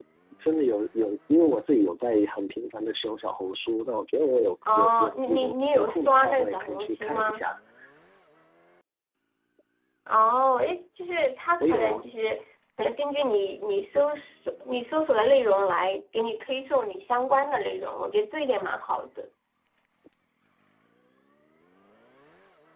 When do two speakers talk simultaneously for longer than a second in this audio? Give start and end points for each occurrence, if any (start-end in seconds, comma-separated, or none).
4.7-7.4